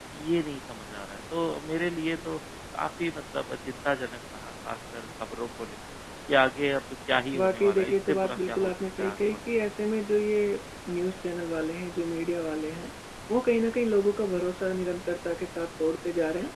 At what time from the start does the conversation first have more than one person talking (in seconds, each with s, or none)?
7.3 s